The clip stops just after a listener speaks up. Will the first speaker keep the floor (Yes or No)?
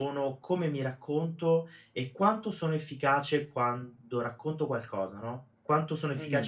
No